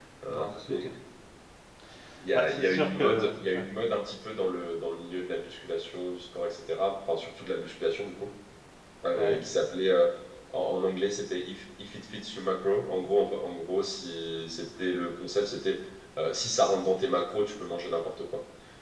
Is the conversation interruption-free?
No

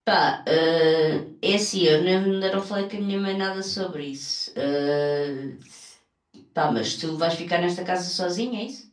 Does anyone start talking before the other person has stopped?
No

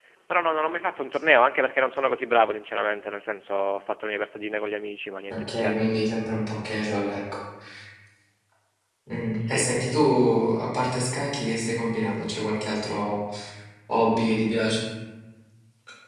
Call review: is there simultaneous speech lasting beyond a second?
No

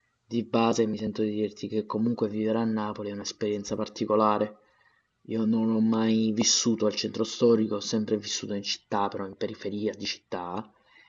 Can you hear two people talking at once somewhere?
No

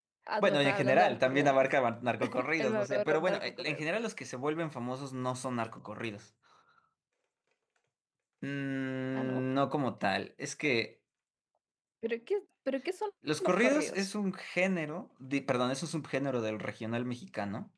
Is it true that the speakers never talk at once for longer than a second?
No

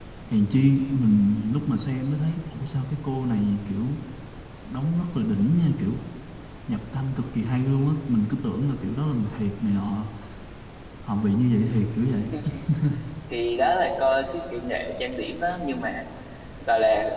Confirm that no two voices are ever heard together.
Yes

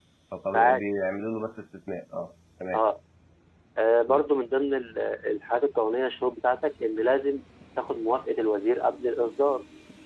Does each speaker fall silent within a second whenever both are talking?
Yes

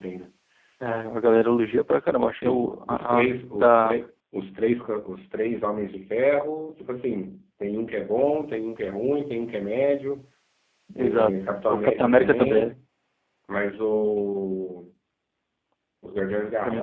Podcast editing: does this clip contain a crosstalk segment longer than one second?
Yes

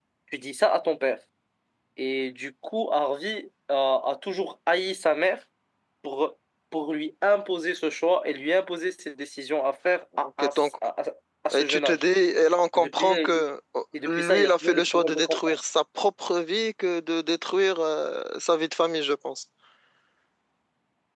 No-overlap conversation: No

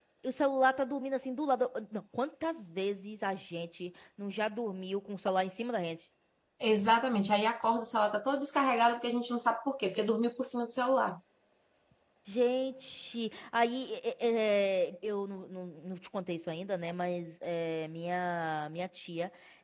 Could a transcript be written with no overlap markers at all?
Yes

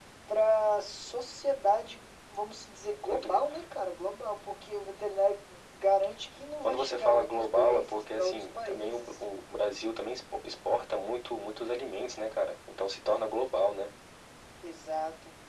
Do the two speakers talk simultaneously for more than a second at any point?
Yes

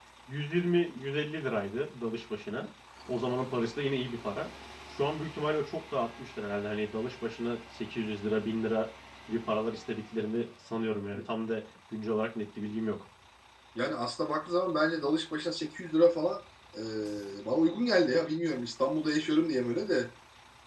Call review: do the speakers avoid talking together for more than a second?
Yes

